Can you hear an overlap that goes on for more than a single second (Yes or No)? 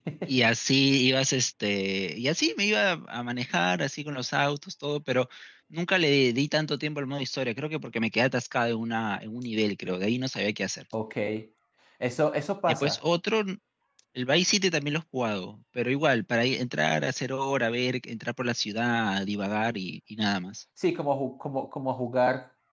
No